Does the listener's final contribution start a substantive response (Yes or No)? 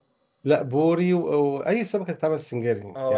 Yes